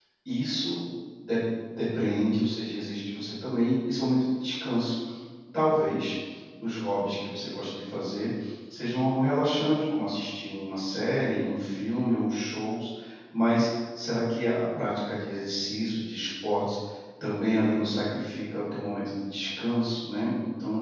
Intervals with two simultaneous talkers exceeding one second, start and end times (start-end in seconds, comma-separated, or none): none